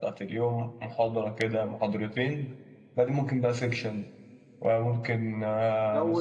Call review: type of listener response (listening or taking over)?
taking over